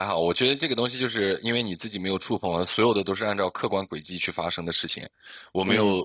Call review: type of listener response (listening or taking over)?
listening